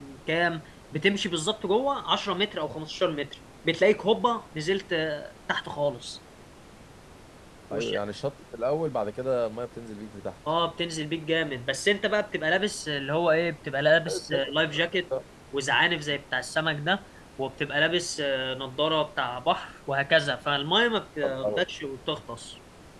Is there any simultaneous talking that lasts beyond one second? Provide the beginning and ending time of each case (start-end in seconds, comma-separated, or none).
none